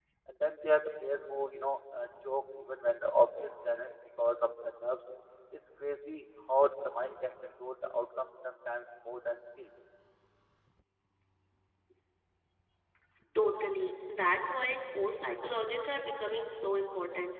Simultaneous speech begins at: none

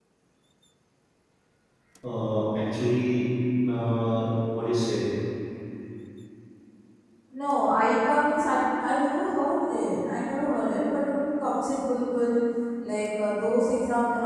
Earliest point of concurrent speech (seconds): none

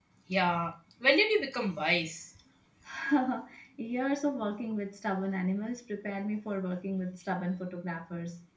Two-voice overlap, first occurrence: none

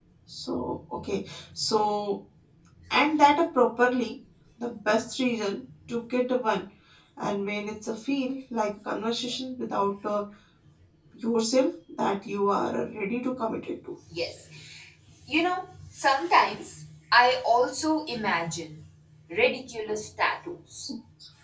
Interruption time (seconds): none

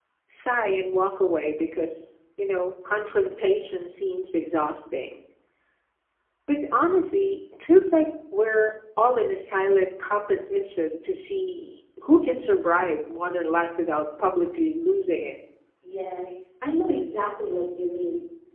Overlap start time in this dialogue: none

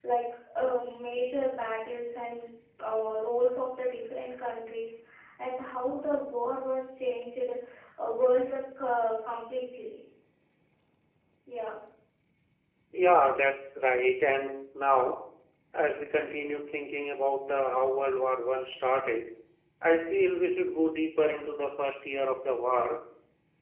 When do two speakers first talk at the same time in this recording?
none

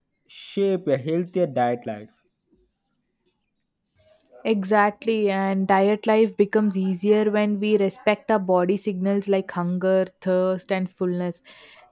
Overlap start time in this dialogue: none

